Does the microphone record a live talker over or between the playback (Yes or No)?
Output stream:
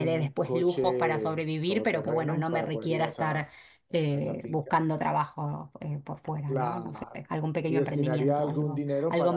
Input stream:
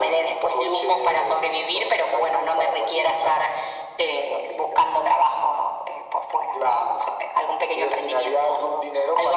No